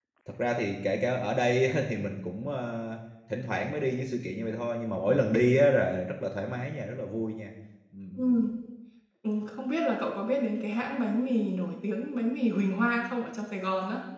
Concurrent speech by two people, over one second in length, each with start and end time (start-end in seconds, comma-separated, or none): none